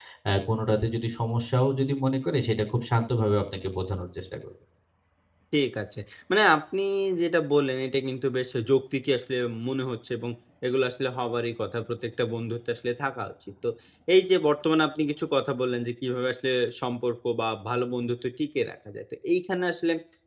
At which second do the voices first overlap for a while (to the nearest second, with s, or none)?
none